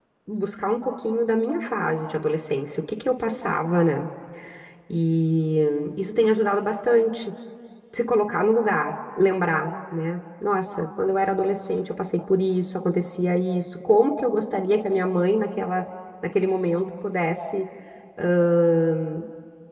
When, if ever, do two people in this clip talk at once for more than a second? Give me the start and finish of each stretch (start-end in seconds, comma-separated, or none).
none